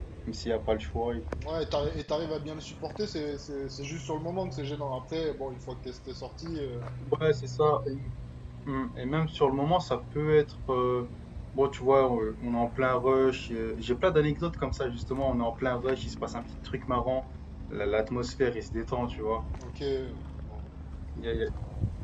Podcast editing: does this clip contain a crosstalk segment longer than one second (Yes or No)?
No